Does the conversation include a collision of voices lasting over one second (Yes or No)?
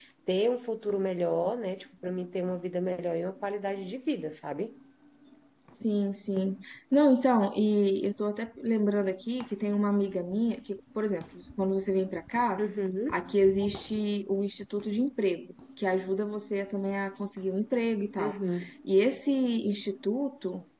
No